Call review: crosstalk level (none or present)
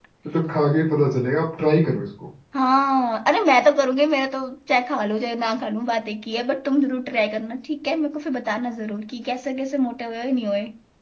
none